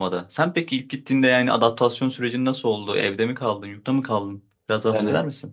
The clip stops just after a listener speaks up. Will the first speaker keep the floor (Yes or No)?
No